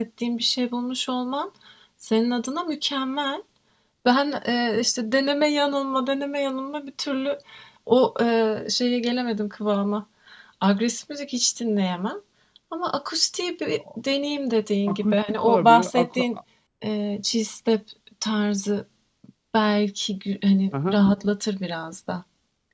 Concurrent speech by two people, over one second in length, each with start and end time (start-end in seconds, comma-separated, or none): 14.9-16.2